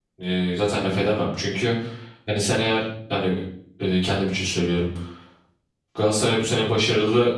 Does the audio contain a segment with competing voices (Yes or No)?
No